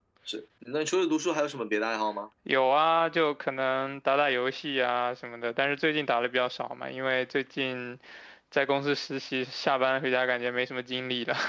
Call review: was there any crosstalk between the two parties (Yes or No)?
No